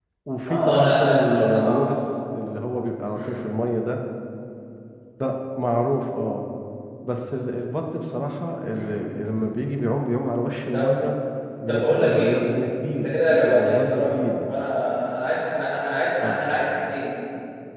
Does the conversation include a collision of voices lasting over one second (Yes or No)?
Yes